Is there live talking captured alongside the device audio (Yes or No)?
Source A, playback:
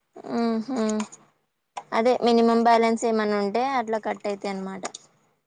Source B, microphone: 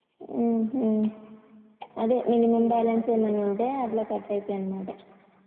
Yes